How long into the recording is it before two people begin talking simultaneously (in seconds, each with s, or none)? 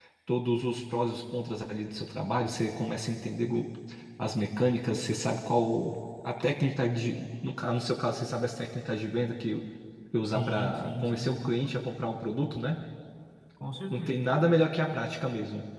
10.3 s